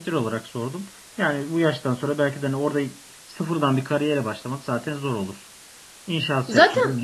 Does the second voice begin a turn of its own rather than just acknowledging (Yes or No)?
No